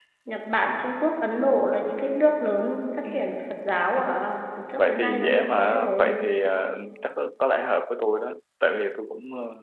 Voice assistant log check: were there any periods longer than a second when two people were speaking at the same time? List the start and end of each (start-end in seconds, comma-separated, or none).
4.8-6.2